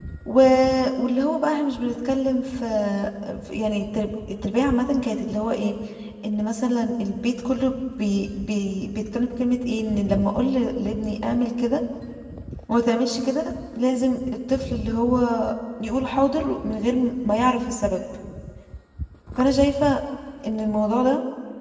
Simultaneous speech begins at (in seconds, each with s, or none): none